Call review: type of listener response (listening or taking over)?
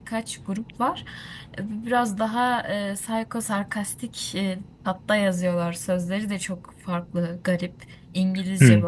taking over